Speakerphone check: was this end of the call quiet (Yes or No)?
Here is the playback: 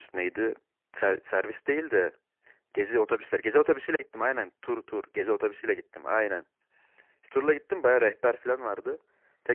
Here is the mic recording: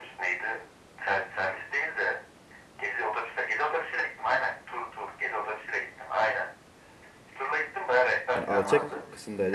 No